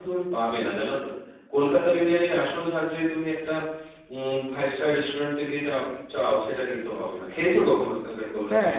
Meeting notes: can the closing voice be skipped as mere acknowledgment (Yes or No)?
No